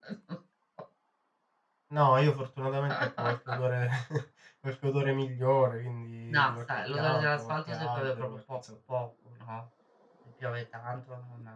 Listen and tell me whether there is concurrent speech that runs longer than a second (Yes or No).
Yes